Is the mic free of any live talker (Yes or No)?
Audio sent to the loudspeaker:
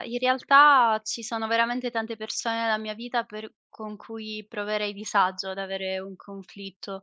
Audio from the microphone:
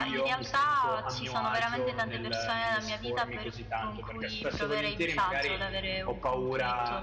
No